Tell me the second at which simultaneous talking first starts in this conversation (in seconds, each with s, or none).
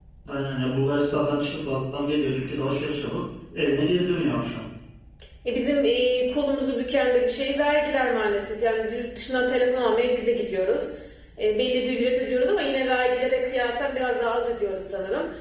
none